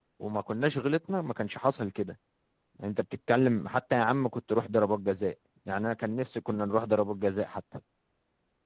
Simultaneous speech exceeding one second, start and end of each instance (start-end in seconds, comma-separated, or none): none